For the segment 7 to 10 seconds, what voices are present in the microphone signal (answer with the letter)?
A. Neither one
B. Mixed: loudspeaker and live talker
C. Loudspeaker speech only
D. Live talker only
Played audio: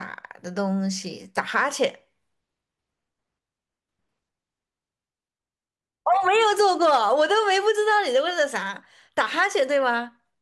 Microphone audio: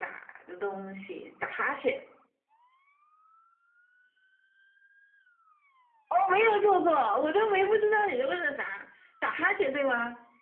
C